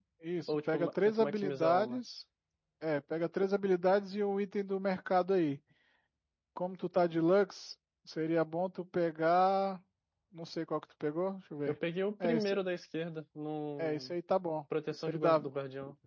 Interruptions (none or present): present